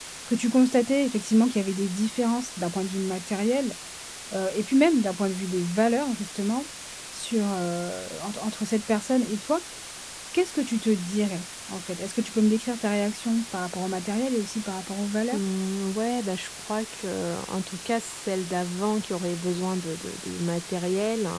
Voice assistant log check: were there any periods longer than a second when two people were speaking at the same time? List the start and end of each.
none

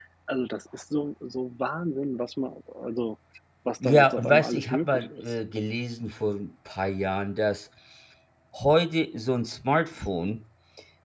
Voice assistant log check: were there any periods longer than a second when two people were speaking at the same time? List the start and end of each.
3.8-5.3

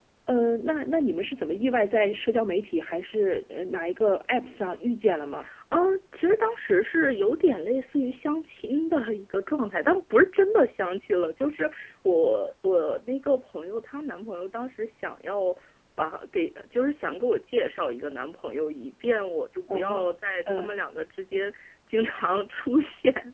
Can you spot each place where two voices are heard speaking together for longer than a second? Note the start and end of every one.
none

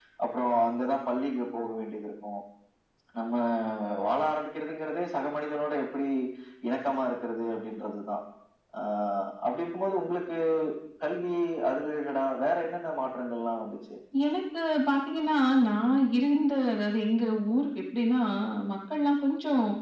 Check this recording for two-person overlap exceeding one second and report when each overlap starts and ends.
none

